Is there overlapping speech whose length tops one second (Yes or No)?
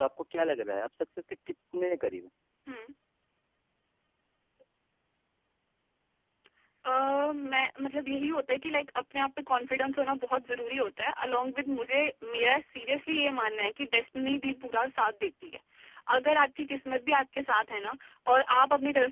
No